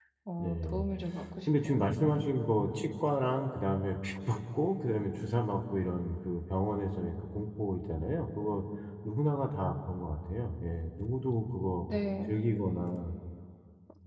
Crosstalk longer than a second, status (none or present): none